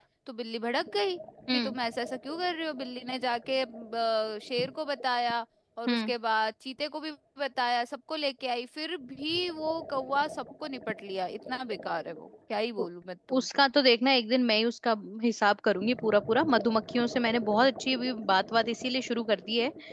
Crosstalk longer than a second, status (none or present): none